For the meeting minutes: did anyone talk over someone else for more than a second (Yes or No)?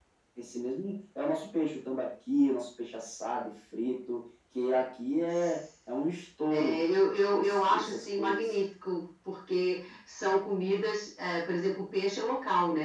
Yes